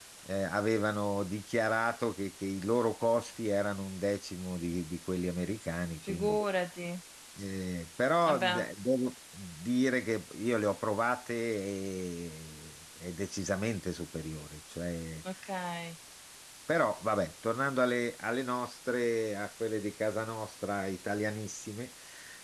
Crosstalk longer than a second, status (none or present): none